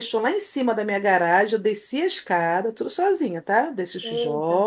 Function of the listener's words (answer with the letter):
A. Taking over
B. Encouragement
B